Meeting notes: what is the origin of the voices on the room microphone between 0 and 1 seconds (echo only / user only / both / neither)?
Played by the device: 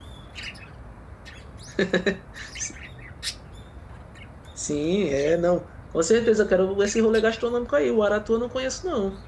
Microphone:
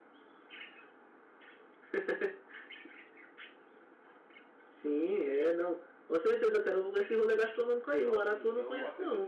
neither